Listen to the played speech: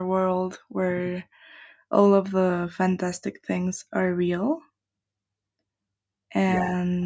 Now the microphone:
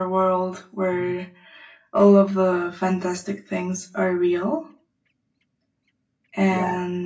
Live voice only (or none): none